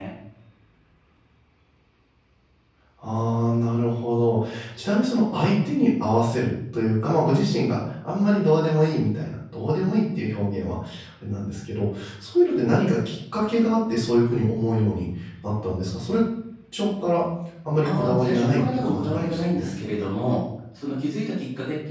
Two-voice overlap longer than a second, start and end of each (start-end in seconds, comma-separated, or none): 17.8-19.7